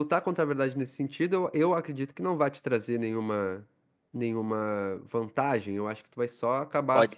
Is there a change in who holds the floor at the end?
No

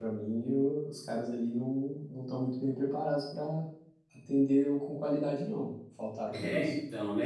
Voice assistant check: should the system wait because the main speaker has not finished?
No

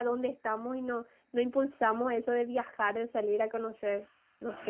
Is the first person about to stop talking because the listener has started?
Yes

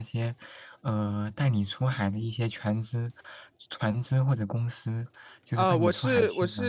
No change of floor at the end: No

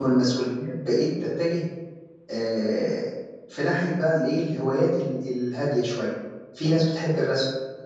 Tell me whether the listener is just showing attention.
Yes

